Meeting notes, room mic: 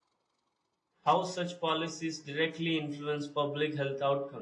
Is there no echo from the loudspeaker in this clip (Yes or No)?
Yes